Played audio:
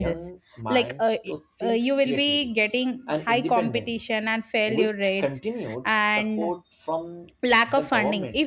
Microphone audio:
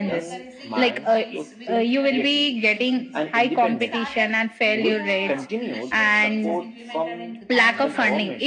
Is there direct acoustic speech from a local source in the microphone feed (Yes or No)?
Yes